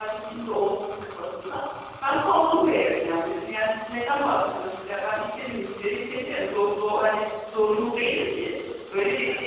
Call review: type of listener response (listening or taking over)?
listening